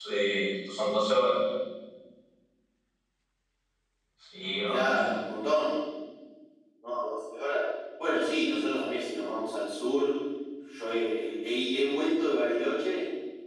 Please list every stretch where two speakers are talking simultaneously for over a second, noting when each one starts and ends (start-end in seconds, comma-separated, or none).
none